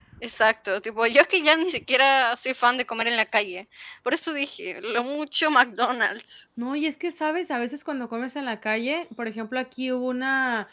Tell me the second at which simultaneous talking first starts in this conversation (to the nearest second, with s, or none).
none